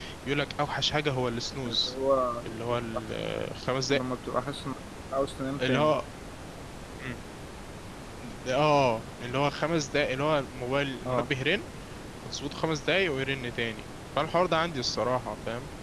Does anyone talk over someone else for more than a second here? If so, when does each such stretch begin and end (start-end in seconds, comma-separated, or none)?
none